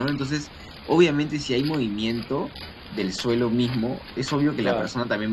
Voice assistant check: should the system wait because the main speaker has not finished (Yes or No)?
Yes